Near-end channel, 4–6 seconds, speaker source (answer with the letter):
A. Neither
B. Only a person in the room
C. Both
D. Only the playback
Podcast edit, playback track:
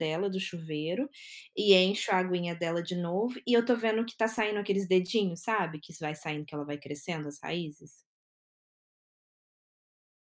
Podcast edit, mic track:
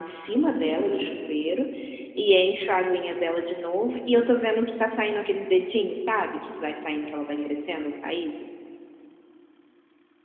D